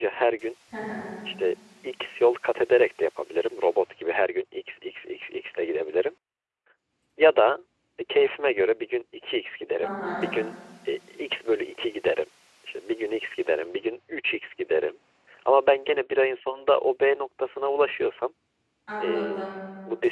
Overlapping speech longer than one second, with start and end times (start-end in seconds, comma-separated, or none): none